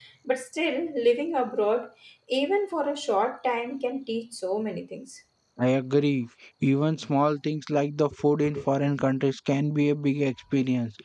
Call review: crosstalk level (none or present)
none